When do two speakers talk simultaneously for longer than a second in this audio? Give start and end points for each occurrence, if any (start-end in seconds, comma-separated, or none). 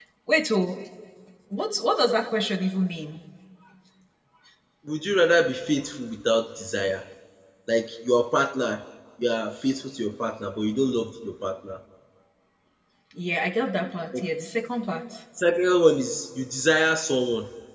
none